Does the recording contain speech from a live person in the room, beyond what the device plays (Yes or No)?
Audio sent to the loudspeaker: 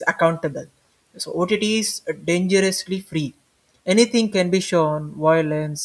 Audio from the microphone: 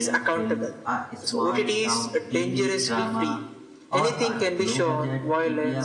Yes